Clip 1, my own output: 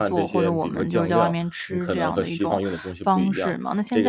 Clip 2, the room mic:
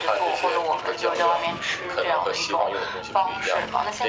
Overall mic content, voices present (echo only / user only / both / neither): echo only